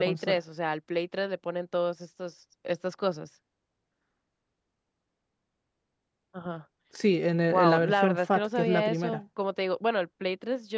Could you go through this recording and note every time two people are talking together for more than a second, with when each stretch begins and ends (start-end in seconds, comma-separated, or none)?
7.5-9.2